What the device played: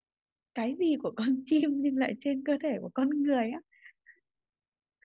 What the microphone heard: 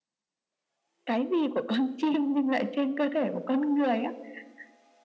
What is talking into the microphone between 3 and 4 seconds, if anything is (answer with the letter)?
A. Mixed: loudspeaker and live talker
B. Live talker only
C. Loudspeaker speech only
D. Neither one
C